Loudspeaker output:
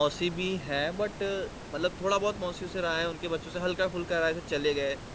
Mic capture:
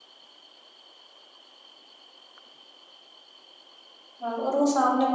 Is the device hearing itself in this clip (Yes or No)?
No